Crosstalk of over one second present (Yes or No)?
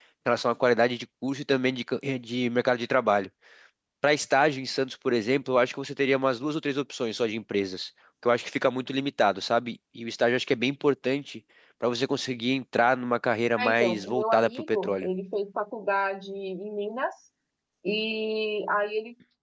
Yes